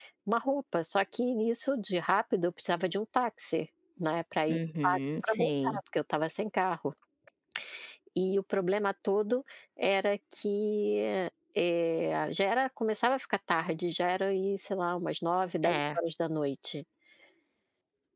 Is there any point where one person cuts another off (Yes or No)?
Yes